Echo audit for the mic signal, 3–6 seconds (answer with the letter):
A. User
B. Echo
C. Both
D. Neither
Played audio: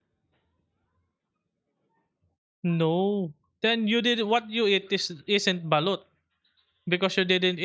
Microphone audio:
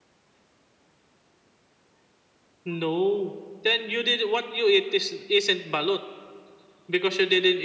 B